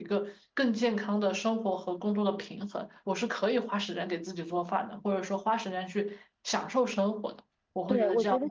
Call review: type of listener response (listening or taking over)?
taking over